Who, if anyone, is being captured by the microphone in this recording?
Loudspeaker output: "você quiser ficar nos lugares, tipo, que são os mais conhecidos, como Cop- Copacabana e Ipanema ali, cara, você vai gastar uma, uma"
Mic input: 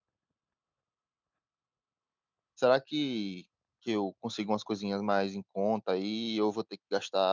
user only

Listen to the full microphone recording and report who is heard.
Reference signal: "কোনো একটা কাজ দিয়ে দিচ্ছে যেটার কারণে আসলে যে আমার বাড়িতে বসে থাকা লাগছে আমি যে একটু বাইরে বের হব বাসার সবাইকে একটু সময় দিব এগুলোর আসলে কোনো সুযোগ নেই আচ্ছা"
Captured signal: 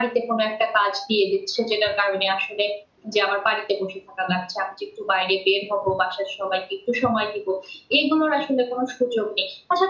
echo only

